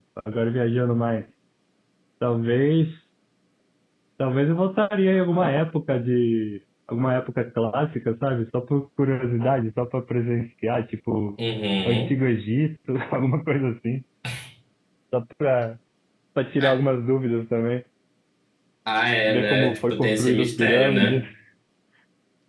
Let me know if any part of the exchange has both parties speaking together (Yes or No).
Yes